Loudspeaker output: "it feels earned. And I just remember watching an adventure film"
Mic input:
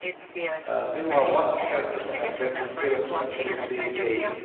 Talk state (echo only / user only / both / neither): both